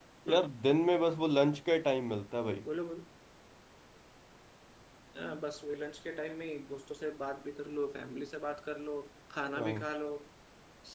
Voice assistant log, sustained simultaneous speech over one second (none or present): none